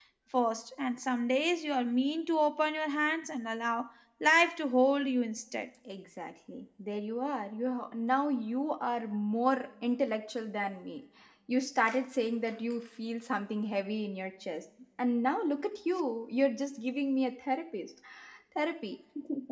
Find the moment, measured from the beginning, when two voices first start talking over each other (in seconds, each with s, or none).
none